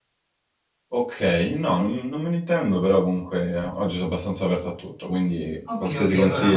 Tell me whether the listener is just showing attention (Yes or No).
No